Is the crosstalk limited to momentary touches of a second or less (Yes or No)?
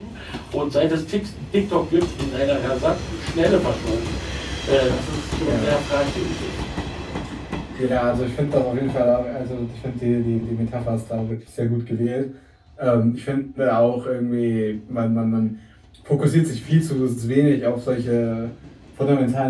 Yes